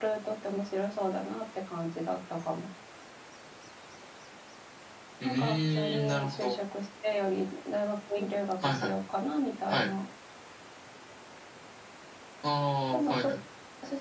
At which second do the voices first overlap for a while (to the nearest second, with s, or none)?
5 s